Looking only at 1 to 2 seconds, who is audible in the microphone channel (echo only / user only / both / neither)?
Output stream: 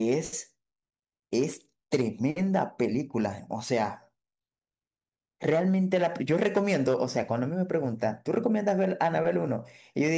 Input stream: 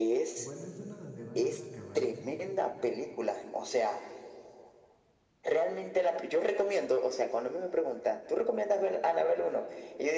both